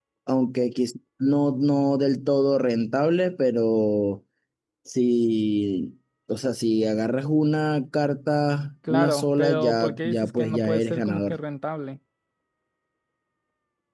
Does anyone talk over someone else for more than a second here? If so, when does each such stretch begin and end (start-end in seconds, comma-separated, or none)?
8.9-11.4